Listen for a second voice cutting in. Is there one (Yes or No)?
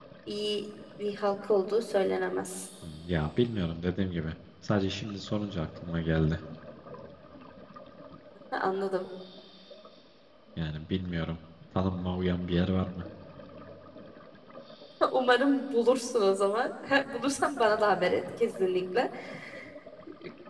No